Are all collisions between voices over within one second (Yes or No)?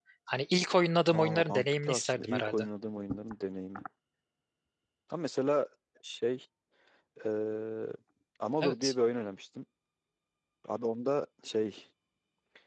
No